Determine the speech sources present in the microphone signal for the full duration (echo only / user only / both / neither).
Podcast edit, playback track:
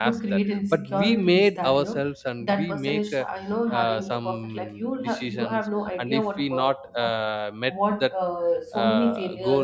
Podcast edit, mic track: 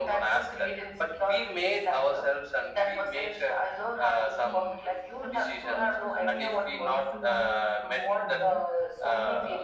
both